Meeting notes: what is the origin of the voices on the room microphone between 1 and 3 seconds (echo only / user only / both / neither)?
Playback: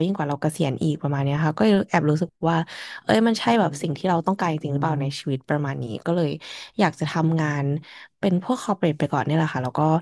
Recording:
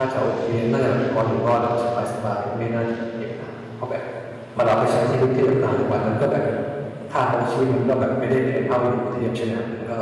user only